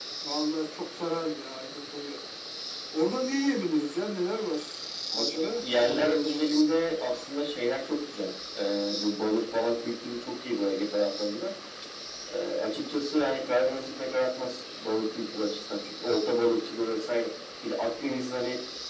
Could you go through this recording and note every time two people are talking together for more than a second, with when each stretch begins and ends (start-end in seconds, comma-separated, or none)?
5.2-6.4